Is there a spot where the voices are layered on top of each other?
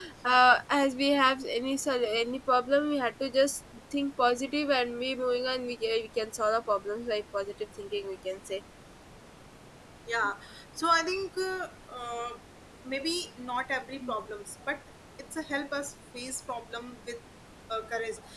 No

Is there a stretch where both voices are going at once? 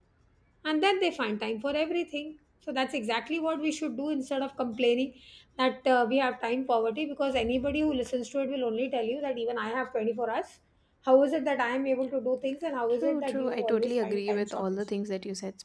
Yes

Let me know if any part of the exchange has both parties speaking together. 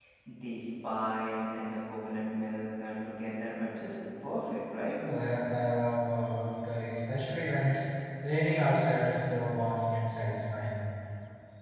No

